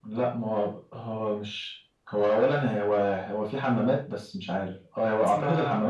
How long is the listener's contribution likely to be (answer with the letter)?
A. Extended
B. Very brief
B